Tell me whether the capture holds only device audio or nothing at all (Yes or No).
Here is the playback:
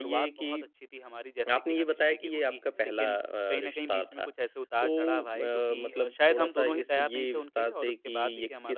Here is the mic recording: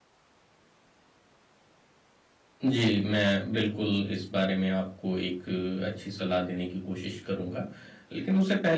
No